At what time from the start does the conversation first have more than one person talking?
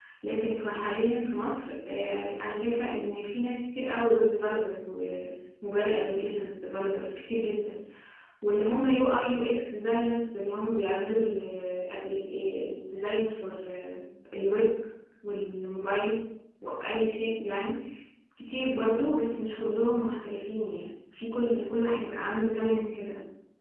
none

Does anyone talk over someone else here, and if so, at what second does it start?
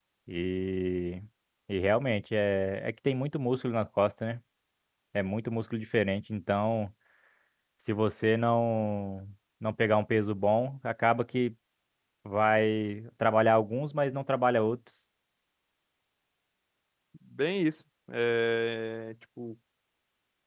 none

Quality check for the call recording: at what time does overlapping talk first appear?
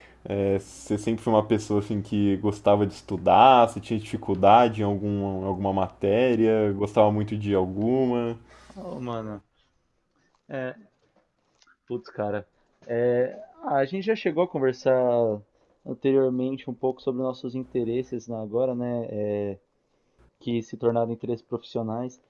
none

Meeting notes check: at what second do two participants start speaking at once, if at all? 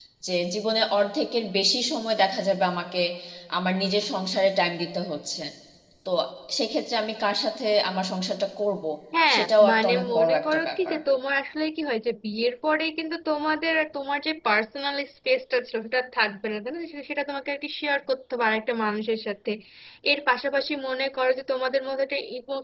9.3 s

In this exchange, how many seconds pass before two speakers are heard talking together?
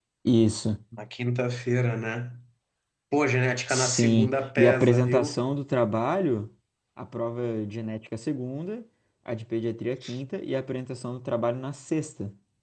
3.7 s

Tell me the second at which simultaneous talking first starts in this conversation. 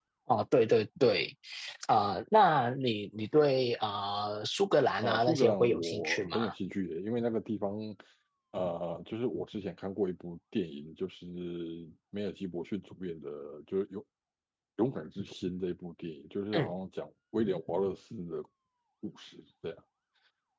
5.0 s

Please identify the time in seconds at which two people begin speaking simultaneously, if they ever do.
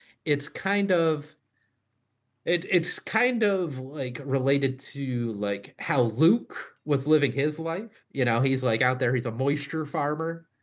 none

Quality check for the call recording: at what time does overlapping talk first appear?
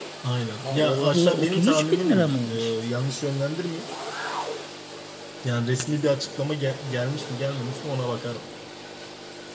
0.6 s

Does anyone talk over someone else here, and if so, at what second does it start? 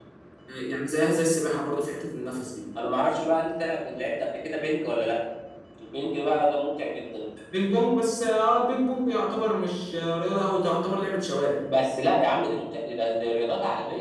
none

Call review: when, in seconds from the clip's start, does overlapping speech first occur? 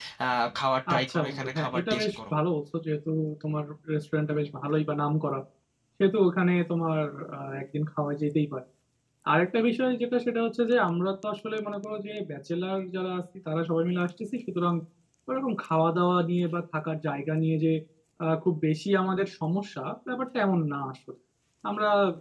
0.9 s

